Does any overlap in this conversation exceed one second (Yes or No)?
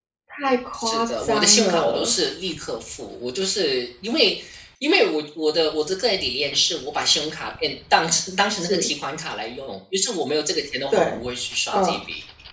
Yes